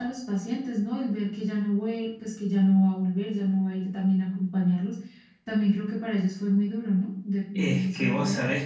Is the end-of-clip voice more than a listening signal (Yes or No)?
Yes